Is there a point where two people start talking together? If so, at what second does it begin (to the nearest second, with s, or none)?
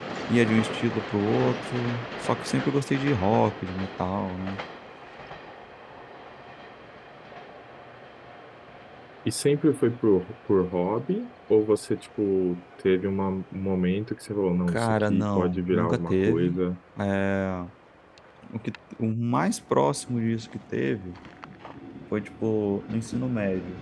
15 s